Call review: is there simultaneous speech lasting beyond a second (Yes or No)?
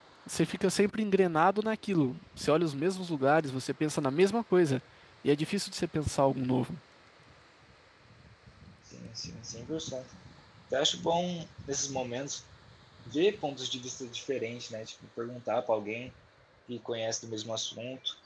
No